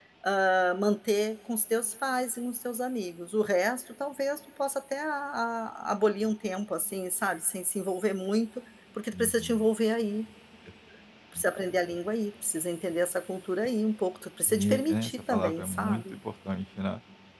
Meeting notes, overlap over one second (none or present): present